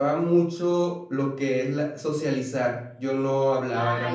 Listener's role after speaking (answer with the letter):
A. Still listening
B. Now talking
B